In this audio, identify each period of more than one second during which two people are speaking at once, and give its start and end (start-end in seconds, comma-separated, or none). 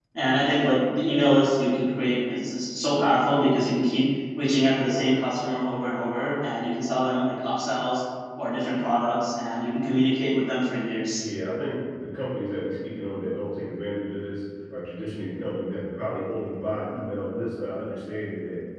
none